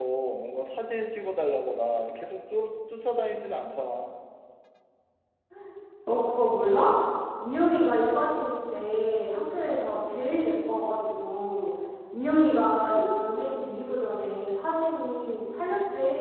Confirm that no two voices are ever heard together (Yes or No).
Yes